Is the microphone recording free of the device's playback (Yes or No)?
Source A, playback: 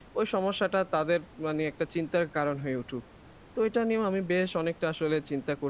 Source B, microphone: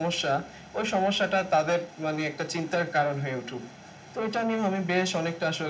No